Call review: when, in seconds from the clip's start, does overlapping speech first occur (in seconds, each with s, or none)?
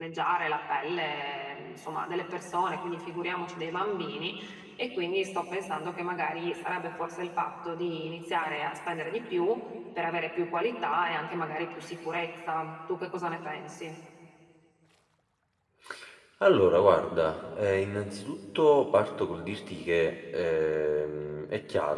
none